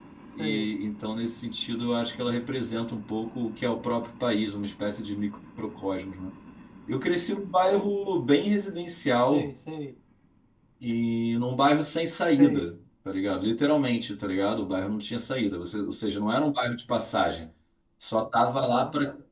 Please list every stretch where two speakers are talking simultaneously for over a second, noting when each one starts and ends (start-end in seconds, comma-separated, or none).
none